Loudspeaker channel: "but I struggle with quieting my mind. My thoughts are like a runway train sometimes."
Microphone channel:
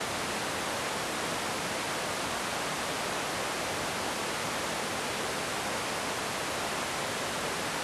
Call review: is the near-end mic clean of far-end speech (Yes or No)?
Yes